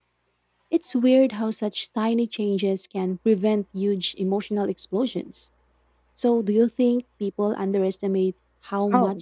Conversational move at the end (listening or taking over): taking over